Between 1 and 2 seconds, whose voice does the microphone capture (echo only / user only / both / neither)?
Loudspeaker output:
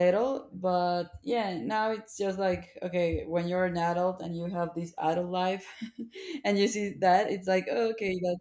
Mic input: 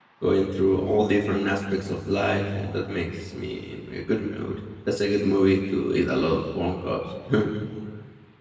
user only